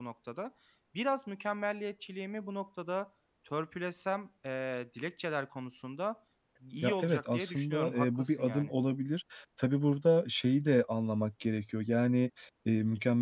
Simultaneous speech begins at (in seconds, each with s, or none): 6.8 s